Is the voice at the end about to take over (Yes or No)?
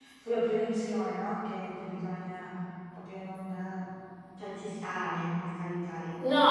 Yes